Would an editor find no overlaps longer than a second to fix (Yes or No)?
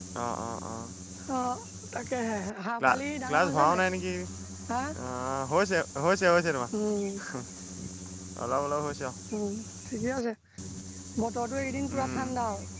Yes